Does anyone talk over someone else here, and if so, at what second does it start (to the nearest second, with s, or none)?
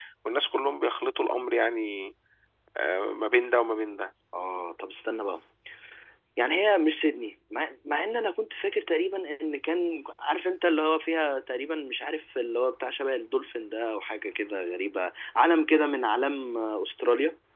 none